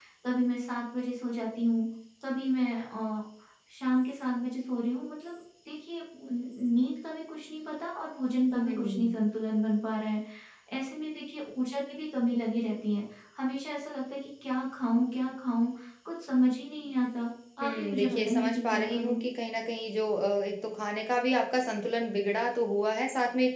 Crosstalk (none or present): present